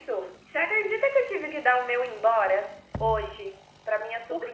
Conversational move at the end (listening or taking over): listening